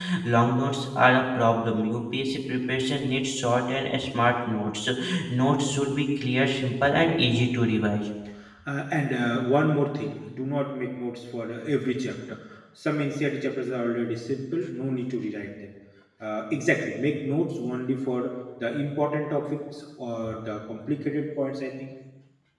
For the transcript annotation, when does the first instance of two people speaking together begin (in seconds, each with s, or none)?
none